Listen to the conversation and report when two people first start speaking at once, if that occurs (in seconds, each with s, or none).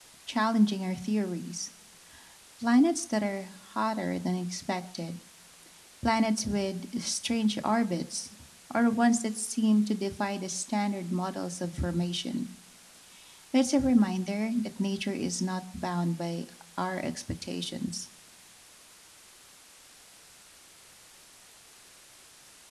none